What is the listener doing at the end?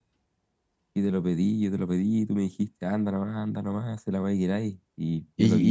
taking over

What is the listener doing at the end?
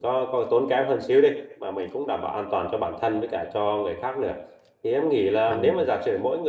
listening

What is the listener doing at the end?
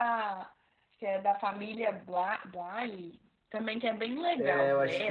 taking over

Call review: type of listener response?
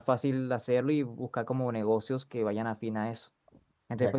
taking over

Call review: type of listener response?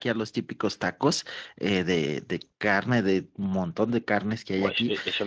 taking over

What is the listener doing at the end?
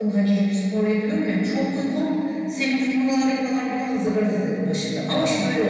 listening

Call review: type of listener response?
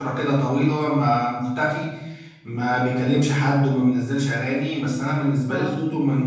taking over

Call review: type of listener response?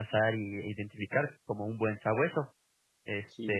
listening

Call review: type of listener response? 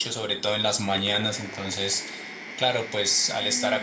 listening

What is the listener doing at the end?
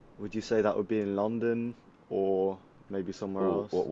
taking over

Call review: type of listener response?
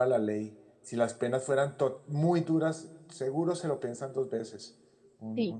taking over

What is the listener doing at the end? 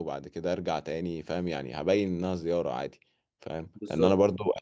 listening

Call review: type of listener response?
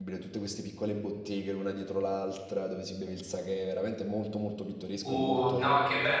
taking over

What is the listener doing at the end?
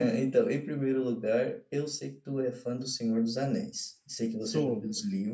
listening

